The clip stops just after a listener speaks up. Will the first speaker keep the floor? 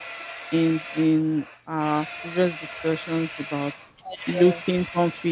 Yes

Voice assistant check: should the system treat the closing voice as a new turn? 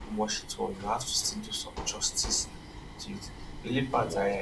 No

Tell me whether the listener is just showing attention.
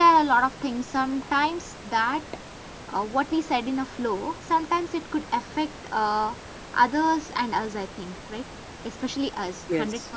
Yes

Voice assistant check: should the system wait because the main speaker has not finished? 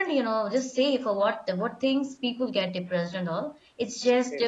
Yes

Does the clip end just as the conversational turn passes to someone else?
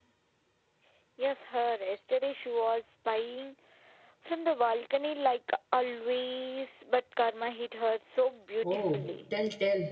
Yes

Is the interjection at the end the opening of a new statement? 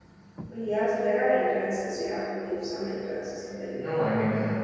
Yes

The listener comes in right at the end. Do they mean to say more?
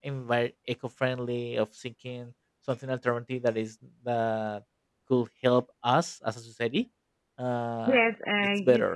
Yes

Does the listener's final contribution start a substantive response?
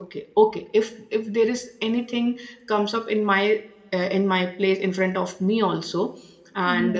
No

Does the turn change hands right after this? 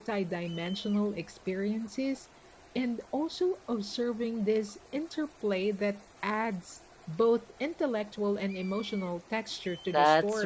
Yes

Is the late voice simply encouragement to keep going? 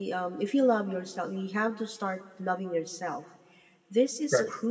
Yes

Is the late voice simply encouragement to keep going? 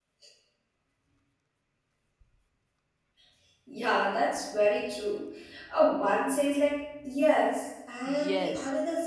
No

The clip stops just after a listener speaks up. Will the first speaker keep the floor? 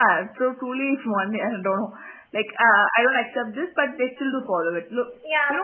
No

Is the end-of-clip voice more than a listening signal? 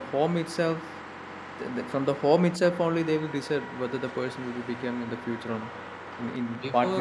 Yes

